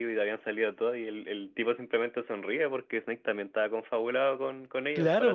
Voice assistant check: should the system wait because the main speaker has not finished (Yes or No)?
No